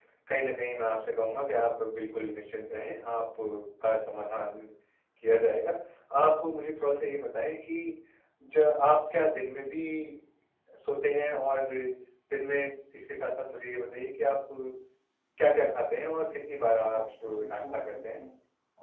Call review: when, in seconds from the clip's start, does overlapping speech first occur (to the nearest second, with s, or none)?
17 s